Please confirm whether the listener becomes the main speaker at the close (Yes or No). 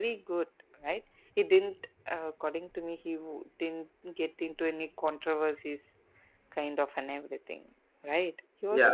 Yes